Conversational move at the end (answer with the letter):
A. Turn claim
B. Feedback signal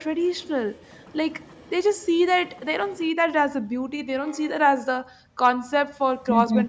B